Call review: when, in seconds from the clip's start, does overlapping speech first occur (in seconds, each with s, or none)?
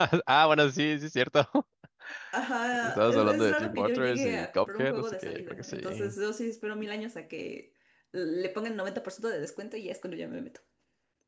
2.8 s